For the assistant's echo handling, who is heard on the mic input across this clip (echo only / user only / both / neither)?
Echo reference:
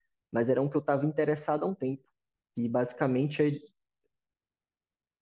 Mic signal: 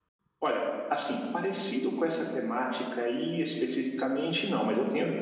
user only